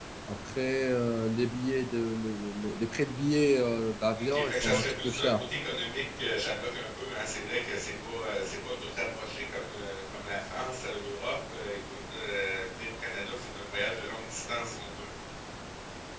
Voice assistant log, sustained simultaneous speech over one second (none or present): present